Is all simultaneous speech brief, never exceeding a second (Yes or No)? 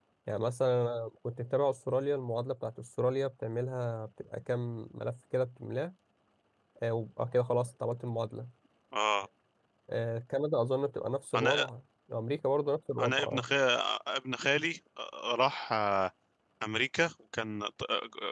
Yes